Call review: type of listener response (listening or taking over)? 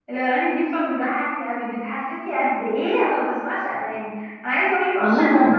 listening